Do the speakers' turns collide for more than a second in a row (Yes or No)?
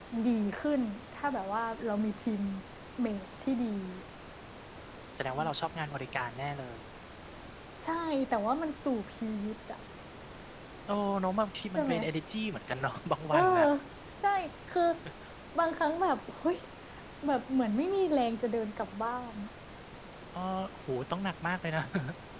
No